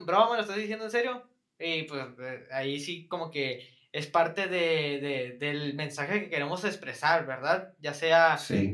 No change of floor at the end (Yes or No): Yes